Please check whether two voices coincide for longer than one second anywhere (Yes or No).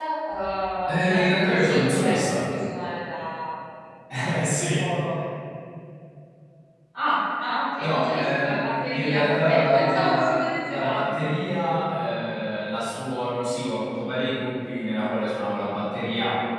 Yes